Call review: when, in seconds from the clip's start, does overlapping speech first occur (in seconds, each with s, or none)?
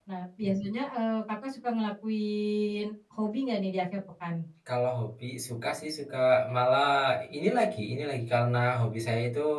none